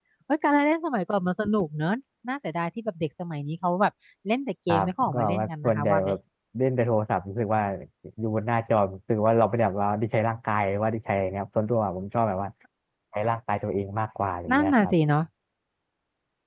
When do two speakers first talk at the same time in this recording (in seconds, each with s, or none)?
4.7 s